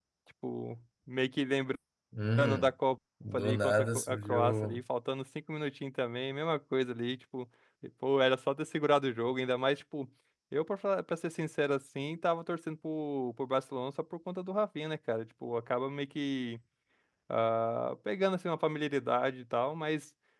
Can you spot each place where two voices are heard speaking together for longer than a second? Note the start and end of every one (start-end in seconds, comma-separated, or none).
3.3-4.8